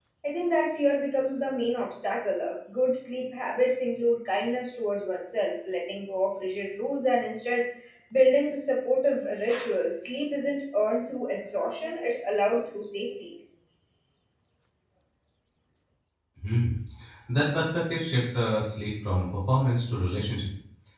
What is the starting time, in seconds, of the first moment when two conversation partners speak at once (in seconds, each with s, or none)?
none